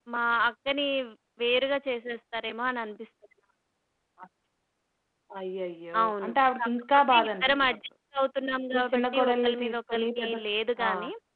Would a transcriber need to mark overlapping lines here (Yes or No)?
Yes